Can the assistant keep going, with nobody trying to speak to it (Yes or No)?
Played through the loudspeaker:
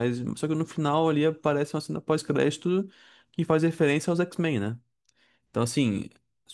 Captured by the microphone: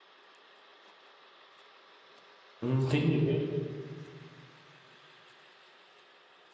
No